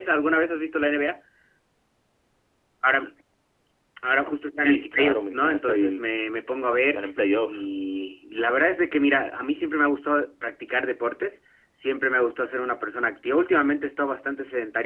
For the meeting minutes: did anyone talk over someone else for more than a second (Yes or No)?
Yes